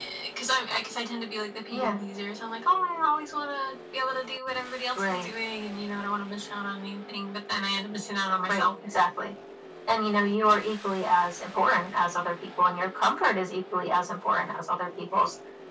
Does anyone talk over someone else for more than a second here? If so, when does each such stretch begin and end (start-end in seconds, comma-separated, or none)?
none